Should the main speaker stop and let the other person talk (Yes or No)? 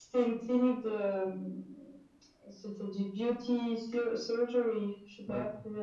No